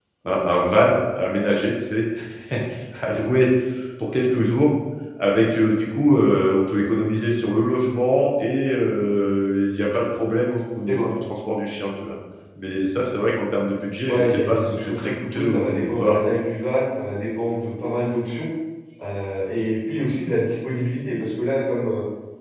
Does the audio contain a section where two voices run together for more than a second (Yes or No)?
Yes